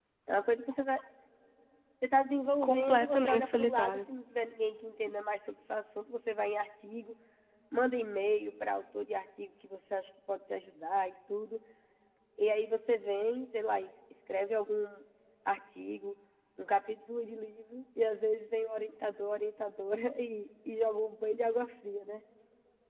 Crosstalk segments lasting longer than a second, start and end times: 2.6-4.0

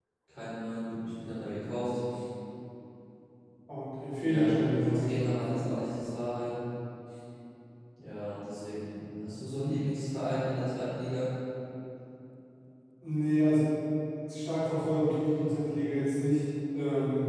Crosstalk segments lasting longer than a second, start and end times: 4.2-5.6

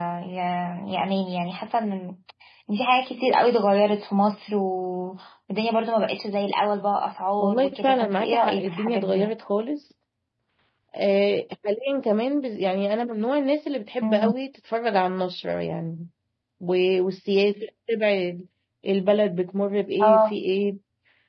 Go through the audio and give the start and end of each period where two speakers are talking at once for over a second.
7.4-9.3

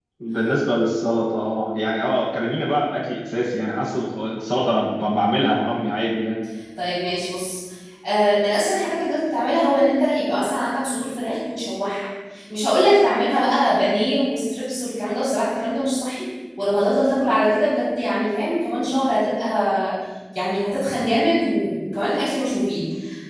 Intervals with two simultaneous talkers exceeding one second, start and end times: none

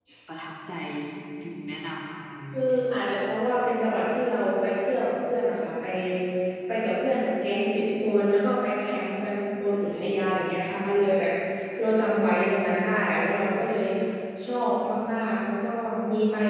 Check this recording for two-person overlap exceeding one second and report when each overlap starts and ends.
none

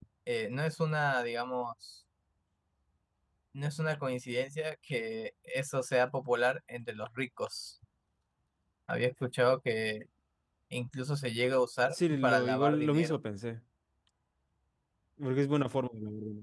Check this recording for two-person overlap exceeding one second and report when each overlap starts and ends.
11.9-13.1

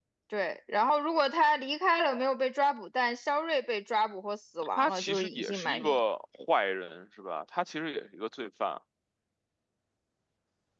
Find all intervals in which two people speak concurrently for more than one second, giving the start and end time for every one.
4.8-6.0

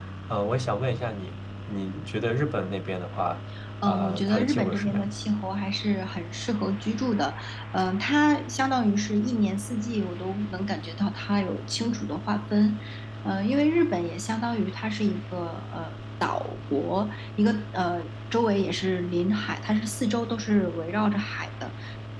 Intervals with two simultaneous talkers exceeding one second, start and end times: 3.9-5.2

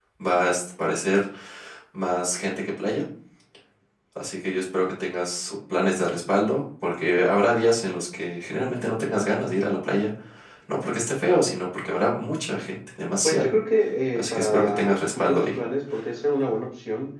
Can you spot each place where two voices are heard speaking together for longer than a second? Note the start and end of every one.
14.2-15.6

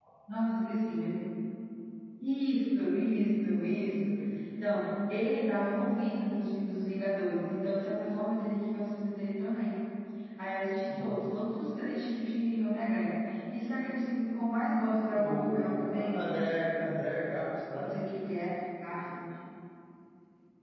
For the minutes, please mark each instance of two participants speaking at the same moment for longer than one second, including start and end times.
15.1-16.8

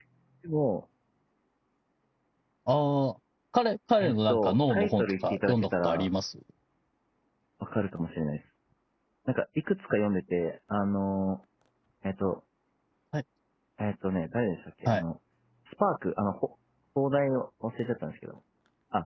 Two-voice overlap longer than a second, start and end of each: 4.0-6.1

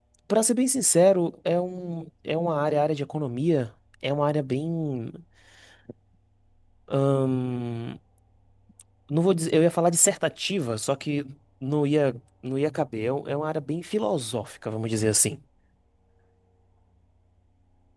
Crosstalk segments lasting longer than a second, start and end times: none

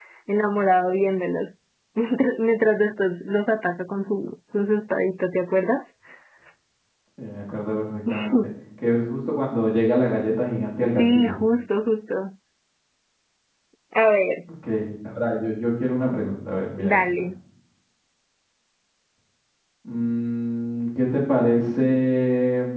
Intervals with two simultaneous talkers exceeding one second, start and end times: none

